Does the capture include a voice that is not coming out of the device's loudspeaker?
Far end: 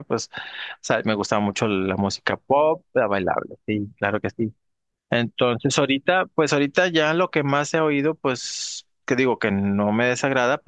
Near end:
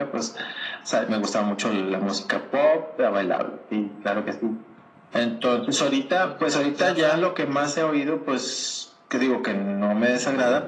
Yes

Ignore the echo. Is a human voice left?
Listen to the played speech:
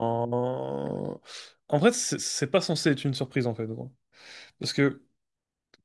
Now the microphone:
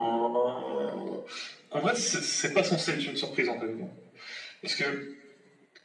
No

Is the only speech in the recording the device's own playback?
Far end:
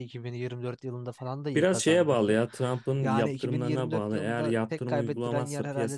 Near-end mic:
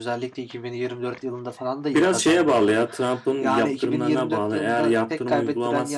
Yes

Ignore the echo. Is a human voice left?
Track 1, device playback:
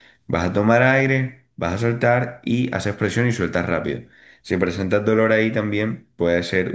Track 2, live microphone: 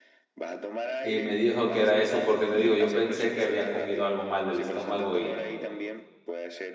Yes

